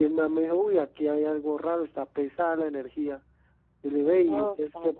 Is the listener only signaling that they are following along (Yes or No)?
Yes